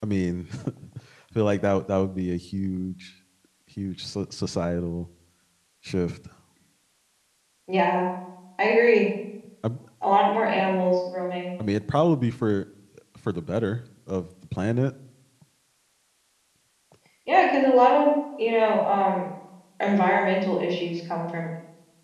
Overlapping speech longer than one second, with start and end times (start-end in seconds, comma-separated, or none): none